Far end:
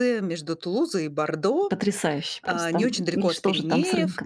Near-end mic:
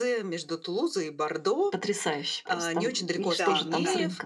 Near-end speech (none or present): present